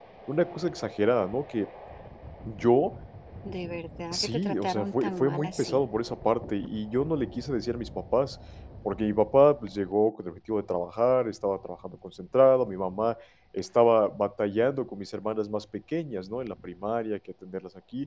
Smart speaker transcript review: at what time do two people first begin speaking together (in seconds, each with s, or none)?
4.1 s